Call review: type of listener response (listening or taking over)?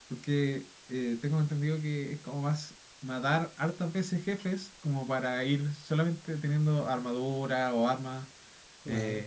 listening